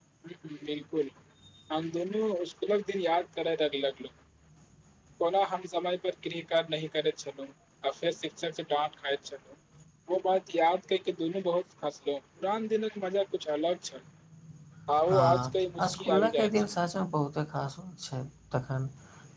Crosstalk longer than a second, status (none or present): present